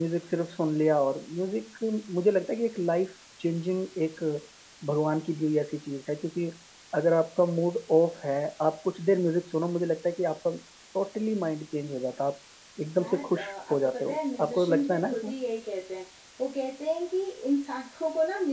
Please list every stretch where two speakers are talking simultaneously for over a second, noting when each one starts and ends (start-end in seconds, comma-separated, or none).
13.0-15.3